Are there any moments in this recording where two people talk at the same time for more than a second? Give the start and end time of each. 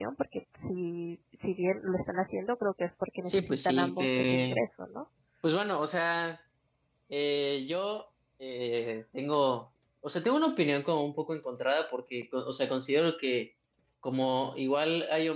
3.2-4.6

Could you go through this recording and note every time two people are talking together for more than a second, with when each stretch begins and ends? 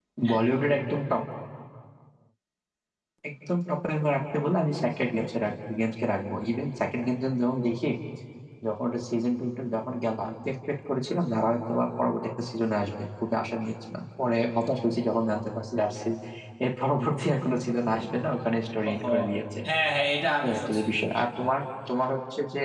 none

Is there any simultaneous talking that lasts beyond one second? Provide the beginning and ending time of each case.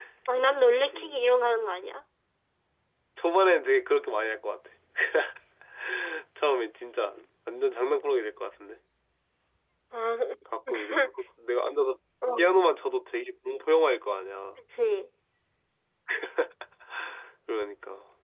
none

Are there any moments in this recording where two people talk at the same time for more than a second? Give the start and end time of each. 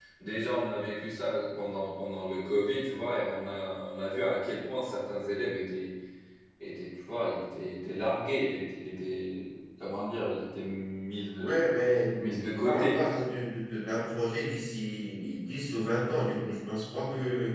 none

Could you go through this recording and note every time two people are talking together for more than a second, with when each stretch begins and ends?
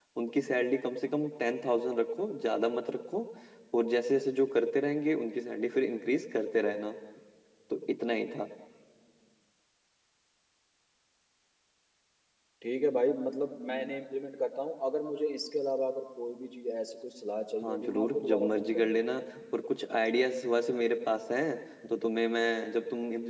17.6-19.0

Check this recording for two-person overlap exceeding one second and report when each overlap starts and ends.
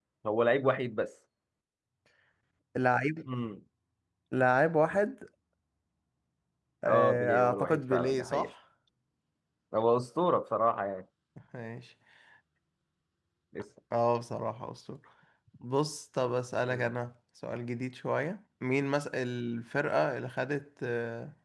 6.9-8.5

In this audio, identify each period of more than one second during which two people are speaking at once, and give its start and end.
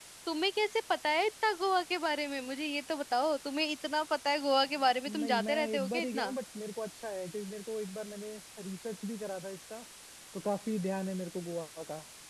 5.1-6.3

